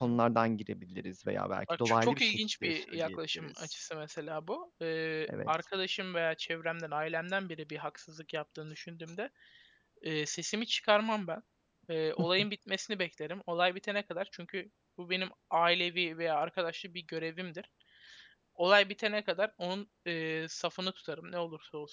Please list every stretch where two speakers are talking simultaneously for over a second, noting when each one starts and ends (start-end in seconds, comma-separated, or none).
1.7-3.7